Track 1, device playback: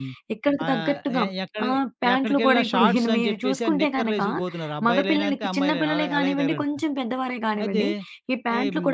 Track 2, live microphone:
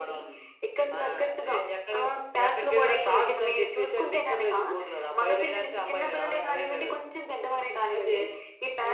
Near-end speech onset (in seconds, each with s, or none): none